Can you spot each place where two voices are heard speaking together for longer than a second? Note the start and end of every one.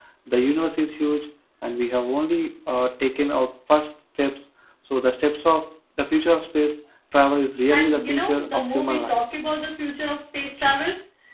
7.7-9.2

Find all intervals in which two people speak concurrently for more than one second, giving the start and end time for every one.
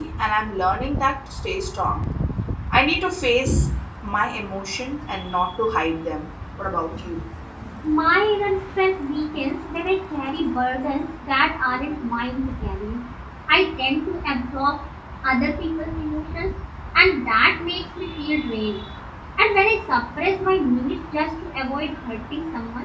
none

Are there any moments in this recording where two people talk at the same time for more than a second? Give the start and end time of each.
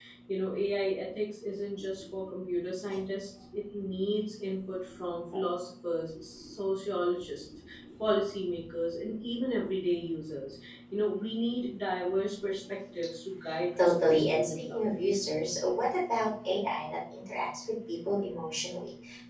13.8-15.0

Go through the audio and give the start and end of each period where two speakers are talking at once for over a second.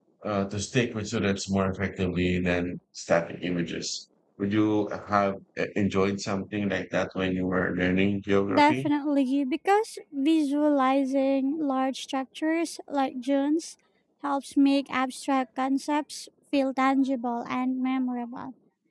none

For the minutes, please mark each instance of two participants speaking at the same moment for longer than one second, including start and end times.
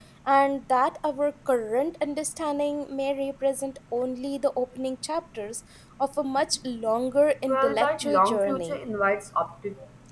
7.5-8.8

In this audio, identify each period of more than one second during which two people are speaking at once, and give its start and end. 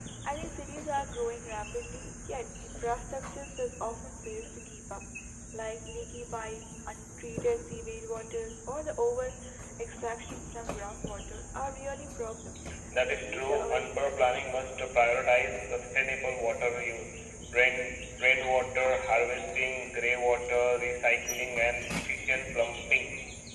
13.0-14.6

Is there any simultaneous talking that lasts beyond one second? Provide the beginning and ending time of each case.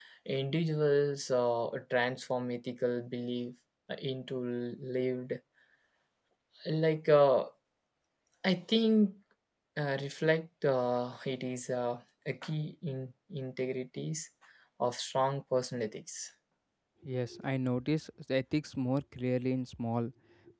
none

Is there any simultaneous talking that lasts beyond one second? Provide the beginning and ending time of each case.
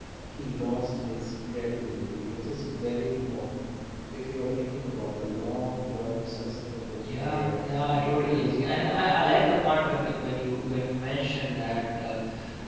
7.2-8.9

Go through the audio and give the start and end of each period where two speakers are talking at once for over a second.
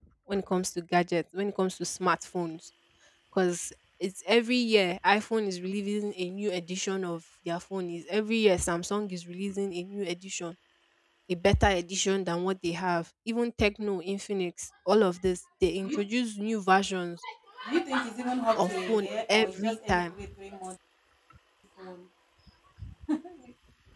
18.6-20.1

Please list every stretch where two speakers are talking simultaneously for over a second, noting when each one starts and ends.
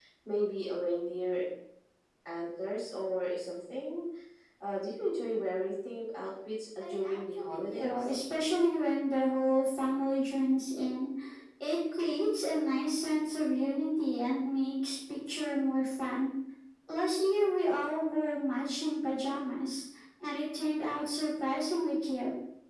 6.8-8.1

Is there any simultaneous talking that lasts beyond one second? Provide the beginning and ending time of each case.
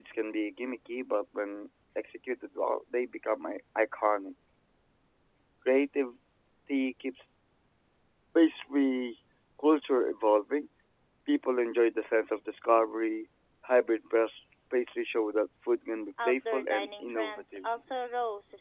16.2-17.6

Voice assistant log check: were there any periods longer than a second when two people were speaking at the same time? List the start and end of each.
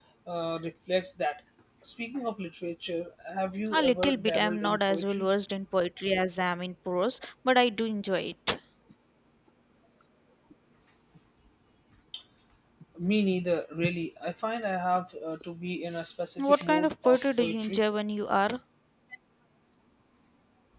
3.7-5.3, 16.4-17.8

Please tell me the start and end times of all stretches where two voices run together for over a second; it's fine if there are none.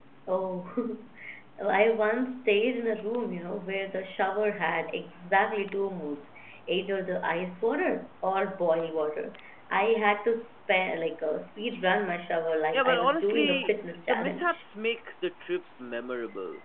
12.7-14.6

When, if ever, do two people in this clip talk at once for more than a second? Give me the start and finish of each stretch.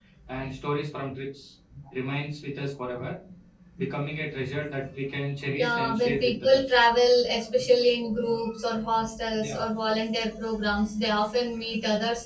5.6-6.8

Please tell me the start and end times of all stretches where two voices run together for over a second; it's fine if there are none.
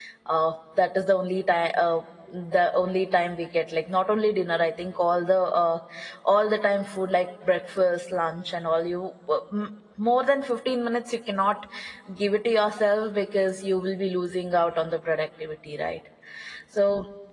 none

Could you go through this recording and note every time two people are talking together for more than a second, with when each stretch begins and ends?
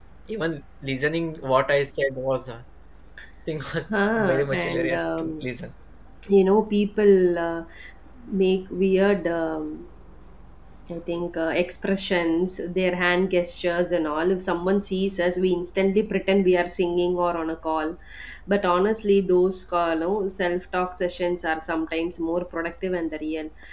4.2-5.5

